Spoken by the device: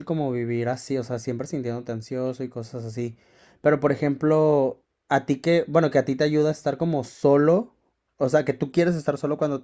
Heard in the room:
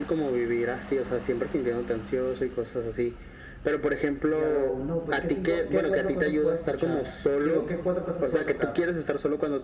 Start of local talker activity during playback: 4 s

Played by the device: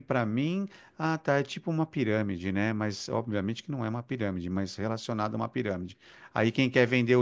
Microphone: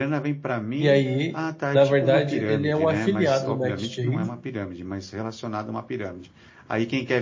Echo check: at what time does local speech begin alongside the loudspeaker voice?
1 s

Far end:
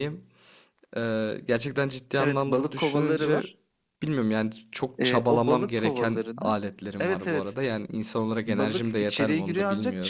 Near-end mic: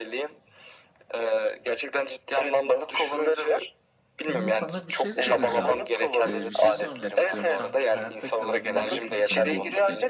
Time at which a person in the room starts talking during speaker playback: 4 s

